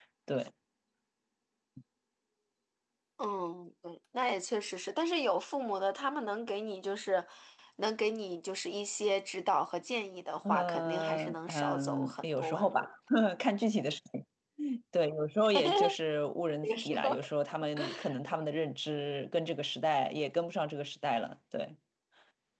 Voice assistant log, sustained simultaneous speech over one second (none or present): present